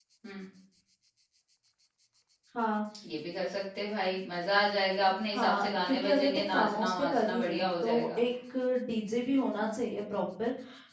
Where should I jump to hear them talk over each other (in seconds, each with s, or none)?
5.3 s